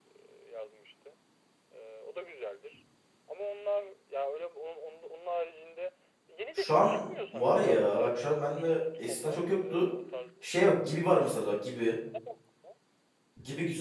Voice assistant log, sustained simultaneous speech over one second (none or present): present